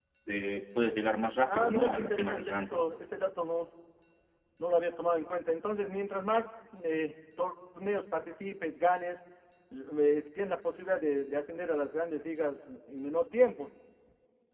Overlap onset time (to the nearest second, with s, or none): 1 s